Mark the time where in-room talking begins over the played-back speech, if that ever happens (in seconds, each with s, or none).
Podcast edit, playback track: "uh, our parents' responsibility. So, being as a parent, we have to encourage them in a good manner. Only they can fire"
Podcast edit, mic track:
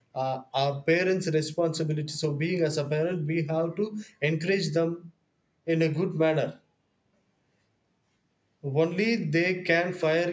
none